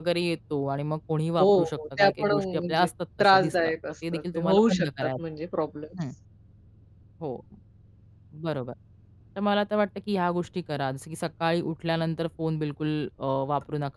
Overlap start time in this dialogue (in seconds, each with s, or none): 1.4 s